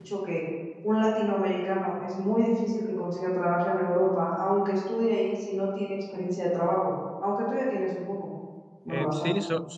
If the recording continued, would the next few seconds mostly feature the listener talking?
Yes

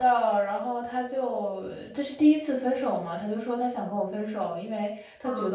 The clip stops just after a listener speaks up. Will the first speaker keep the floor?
Yes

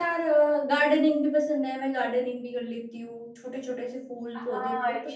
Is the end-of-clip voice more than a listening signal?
Yes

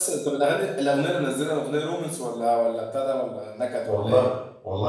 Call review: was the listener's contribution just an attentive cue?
No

